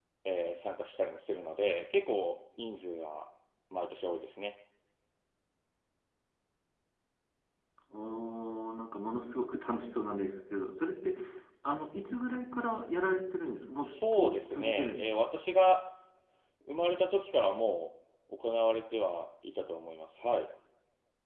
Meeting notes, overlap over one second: present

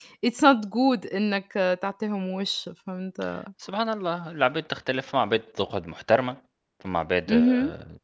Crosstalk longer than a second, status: none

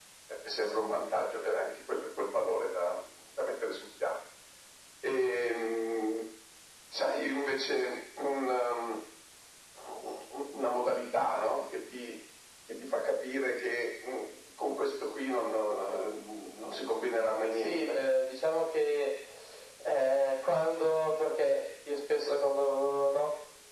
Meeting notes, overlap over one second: none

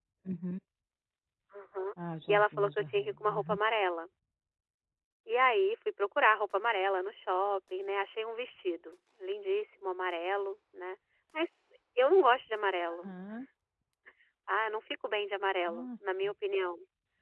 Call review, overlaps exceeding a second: present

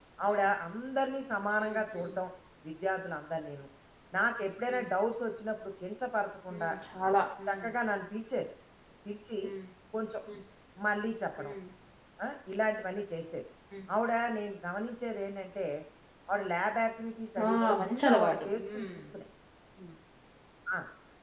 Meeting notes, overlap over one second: present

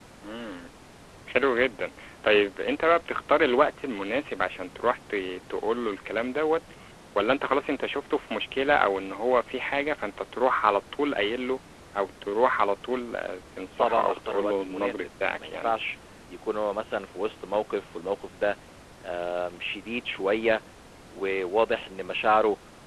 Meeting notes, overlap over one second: present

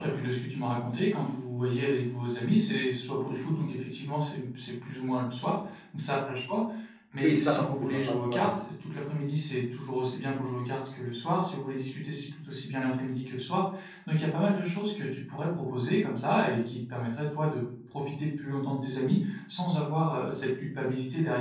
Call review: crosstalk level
present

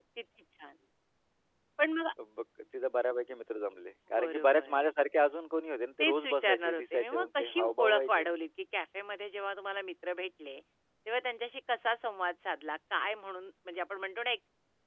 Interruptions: present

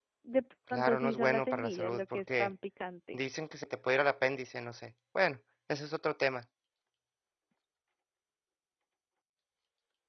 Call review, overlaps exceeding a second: present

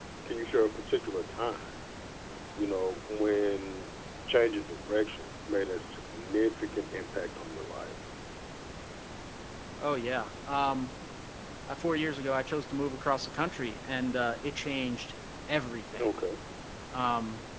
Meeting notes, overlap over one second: none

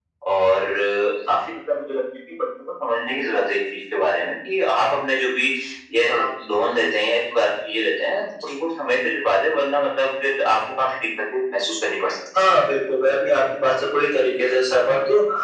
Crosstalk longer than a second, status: none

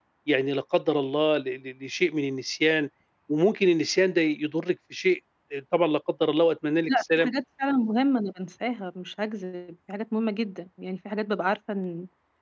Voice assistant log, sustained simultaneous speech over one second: none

